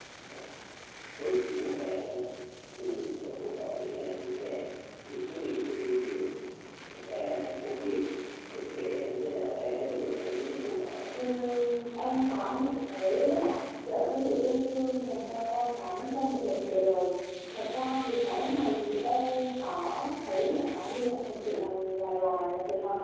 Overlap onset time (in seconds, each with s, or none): none